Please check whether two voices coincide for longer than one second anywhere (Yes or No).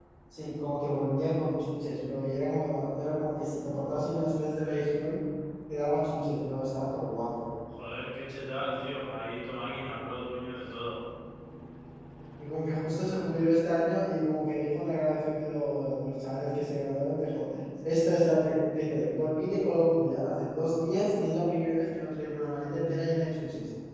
No